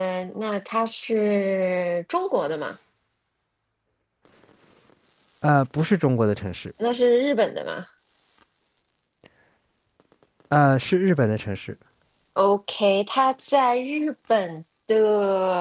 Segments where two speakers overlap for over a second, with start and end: none

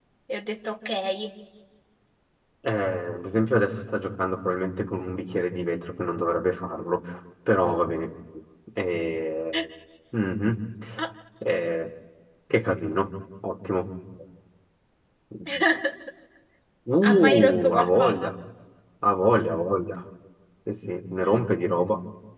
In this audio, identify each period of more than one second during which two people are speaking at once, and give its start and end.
17.0-18.3

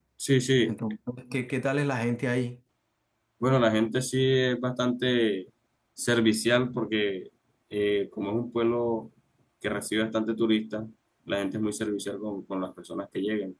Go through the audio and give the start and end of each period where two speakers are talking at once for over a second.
none

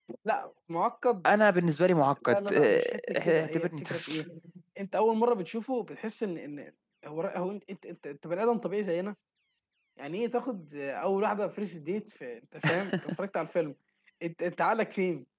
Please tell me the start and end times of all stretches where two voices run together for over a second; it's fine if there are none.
2.3-4.2

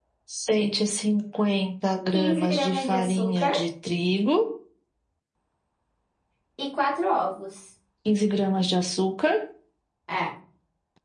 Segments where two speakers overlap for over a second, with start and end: 2.1-3.5

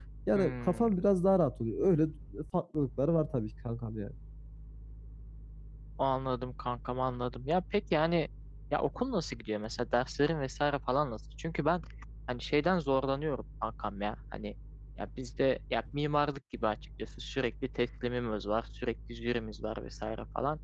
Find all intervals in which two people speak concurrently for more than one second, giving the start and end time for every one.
none

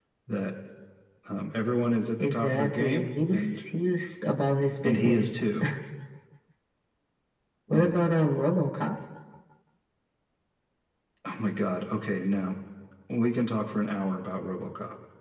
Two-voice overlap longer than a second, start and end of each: 2.2-3.6

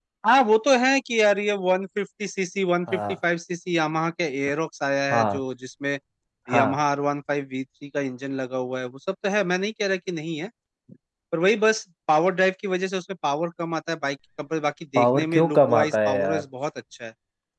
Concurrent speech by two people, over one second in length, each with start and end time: 14.9-16.4

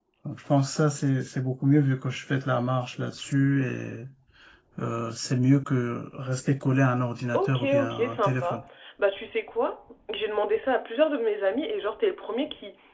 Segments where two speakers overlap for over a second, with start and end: 7.3-8.6

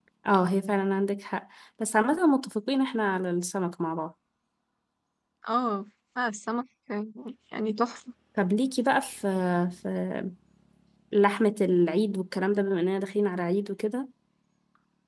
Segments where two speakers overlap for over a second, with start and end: none

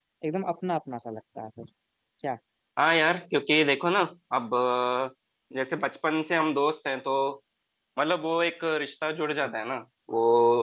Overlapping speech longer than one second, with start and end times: none

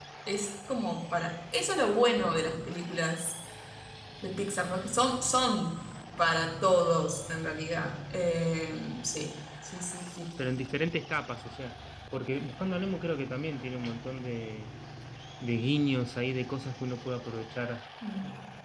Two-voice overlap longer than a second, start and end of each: none

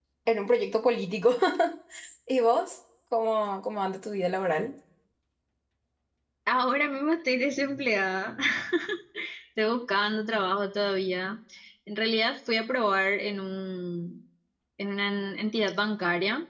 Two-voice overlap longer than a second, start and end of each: none

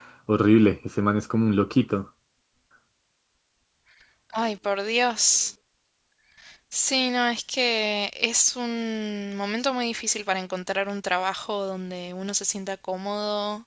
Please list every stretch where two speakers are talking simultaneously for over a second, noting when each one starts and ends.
none

